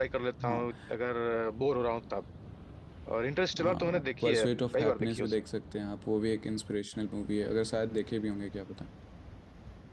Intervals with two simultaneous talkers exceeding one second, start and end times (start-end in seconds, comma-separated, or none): 3.6-5.4